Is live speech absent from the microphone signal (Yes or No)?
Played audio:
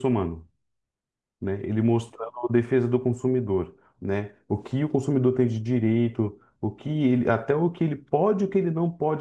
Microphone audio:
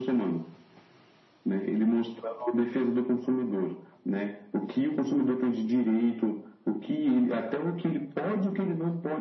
Yes